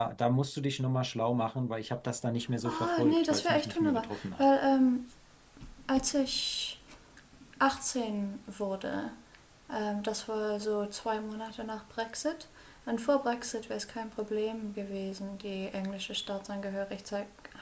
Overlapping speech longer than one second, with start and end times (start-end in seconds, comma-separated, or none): 2.6-4.5